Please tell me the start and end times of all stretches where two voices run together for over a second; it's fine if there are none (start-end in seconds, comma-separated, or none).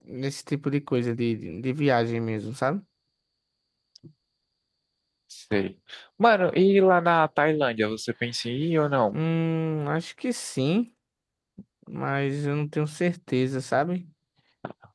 none